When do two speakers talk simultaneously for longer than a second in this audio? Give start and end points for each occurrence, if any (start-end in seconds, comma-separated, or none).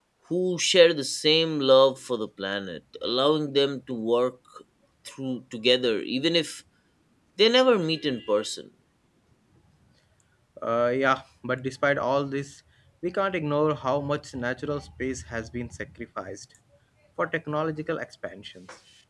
none